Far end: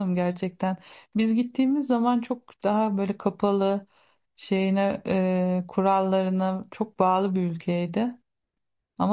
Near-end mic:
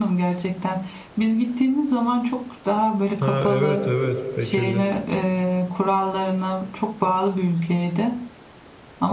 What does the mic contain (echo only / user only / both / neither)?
both